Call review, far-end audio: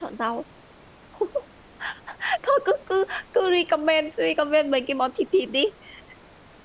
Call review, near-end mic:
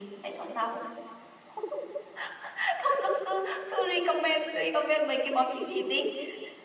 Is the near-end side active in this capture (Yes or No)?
No